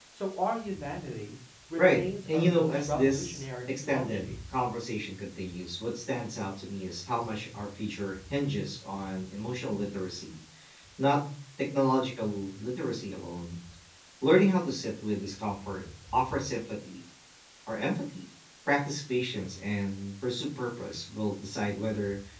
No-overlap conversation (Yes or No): No